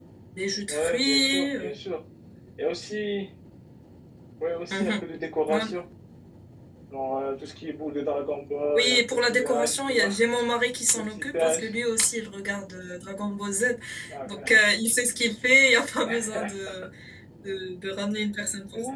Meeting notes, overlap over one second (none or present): present